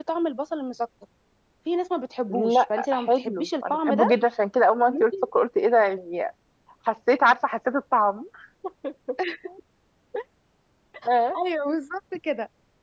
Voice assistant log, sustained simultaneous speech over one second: present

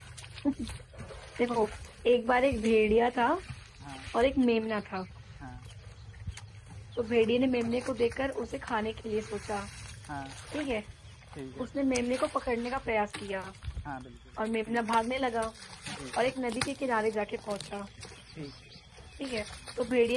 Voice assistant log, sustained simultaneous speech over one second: none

